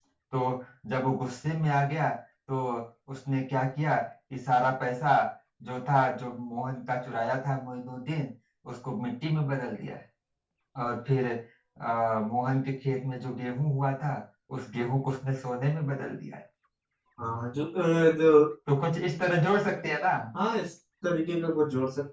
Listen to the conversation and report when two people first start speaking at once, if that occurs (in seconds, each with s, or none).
none